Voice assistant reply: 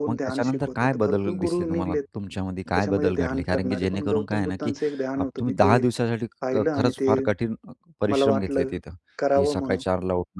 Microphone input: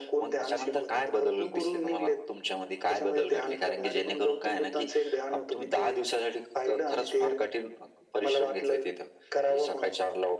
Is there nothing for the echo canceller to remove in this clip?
No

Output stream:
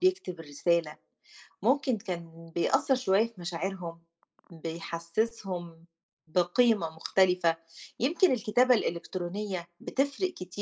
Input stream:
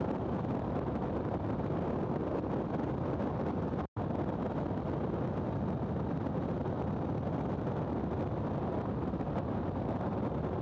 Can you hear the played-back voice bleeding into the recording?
No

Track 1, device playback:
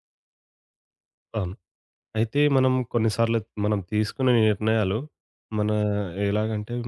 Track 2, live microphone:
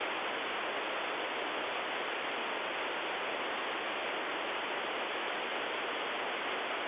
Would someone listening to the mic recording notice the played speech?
No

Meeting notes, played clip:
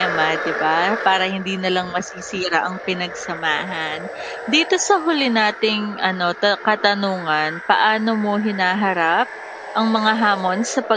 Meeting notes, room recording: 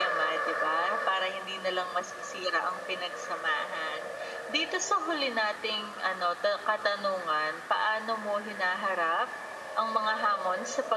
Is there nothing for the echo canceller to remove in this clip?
No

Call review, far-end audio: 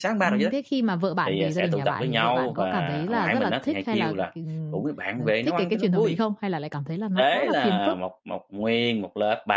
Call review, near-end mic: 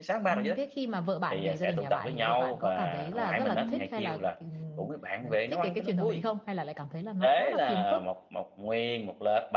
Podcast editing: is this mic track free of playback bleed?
No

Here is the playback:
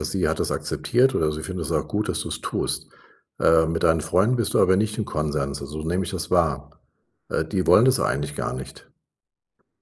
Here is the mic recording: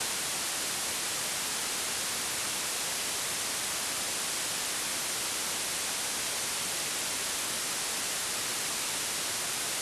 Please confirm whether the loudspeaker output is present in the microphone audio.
No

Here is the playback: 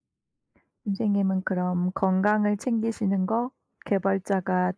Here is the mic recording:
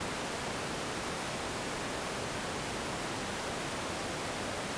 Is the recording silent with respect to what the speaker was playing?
Yes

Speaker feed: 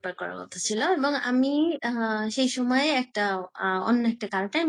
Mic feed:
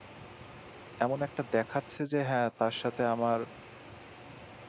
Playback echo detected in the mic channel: No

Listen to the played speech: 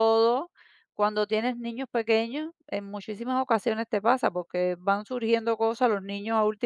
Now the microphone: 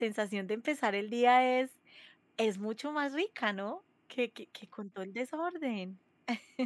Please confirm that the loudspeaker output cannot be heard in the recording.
Yes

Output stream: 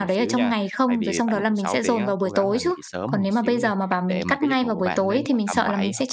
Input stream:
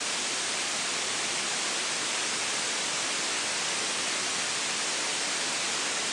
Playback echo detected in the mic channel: No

